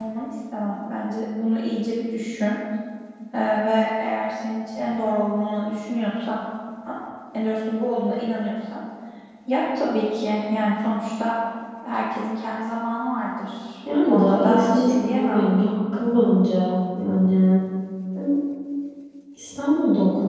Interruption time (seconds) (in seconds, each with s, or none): 13.8 s